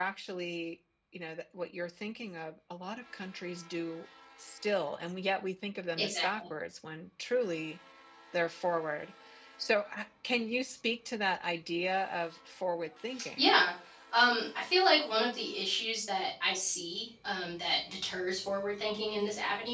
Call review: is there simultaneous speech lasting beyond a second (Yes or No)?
No